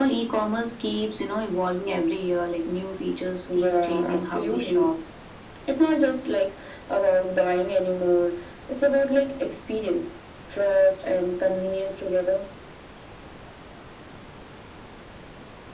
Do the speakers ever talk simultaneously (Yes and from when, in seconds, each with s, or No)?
Yes, from 3.5 s